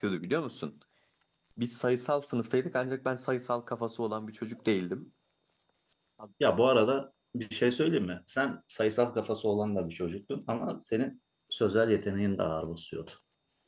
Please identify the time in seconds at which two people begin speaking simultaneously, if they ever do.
none

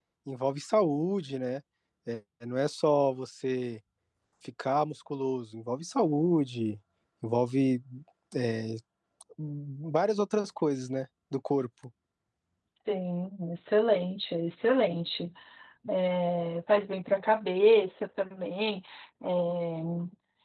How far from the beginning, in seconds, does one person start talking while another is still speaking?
none

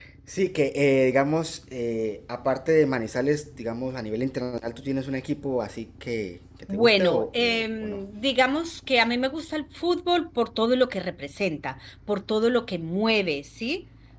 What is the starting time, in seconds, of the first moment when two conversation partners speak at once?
6.7 s

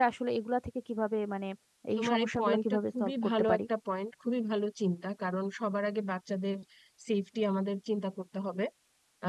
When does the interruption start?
2.0 s

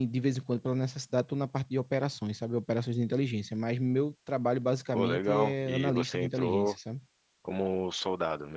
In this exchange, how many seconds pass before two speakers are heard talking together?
4.9 s

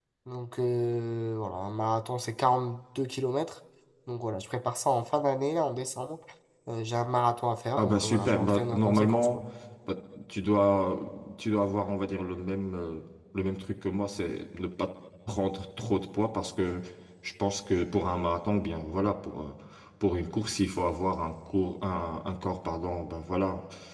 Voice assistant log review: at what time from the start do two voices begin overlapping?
7.8 s

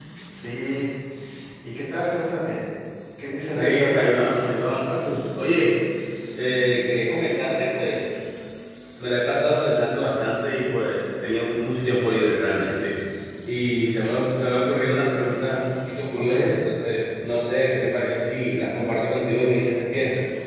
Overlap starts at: 3.5 s

